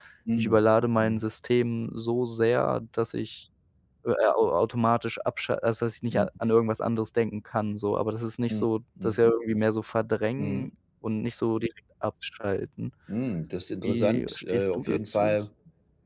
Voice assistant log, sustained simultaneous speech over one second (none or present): present